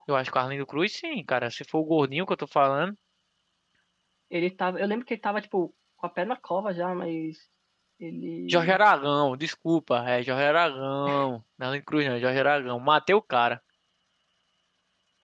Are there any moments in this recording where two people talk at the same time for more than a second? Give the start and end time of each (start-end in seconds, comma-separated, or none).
none